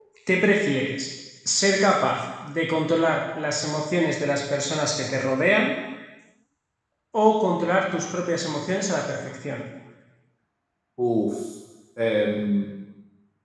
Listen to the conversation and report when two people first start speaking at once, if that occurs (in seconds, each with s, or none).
none